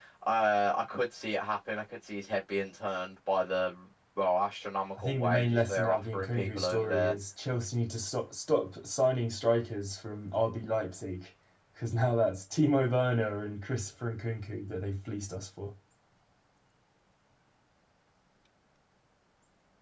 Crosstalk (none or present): present